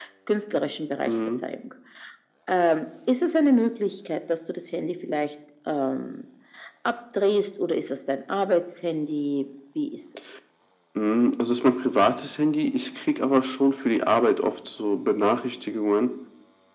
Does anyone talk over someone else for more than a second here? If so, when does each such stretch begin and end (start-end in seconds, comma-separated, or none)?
none